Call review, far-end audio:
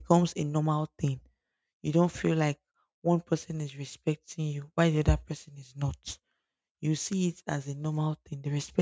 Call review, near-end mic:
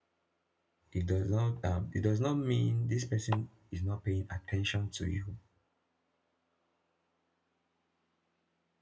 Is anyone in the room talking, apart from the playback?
Yes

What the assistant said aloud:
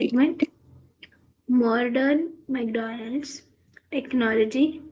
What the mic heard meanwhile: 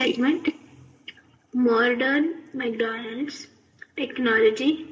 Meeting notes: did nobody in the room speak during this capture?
Yes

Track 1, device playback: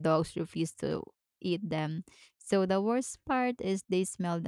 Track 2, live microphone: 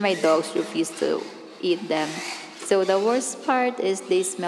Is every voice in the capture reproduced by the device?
Yes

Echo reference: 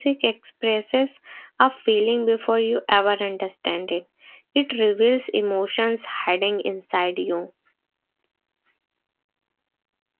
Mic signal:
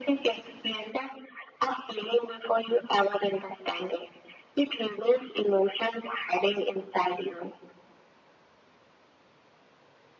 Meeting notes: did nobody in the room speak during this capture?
Yes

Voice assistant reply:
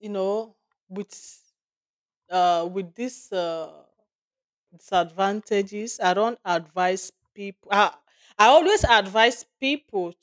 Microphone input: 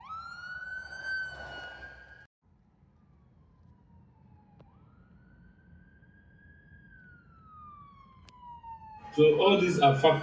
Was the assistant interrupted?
Yes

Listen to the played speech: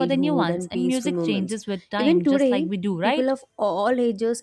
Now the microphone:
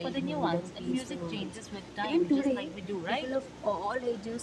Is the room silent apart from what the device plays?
Yes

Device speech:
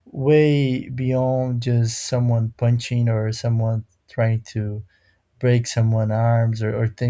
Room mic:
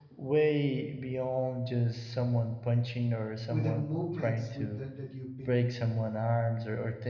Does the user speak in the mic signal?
Yes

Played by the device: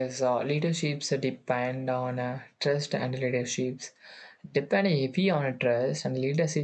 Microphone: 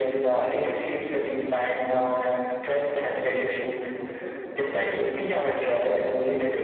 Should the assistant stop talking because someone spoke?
Yes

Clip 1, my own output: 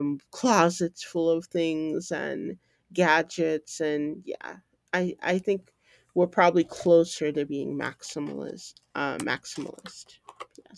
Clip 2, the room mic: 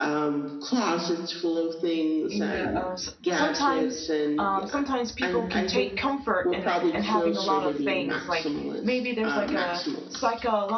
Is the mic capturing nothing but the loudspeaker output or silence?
No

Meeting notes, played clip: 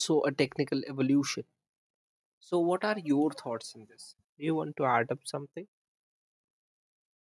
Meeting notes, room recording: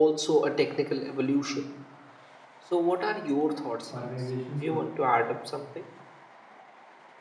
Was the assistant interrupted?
Yes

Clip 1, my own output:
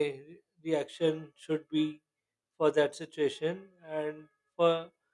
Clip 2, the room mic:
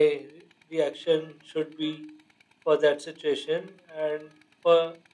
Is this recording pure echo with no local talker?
Yes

